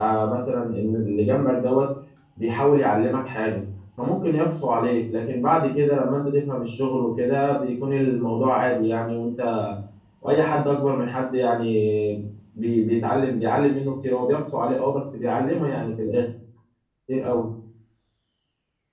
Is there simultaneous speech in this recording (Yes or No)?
No